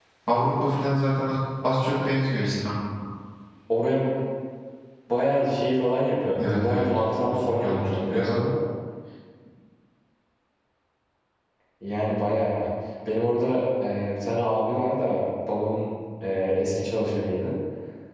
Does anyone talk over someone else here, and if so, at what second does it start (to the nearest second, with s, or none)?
6 s